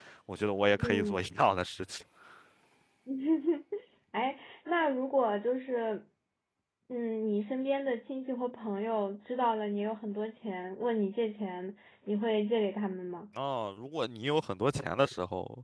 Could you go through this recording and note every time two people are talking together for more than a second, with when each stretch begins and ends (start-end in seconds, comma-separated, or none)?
none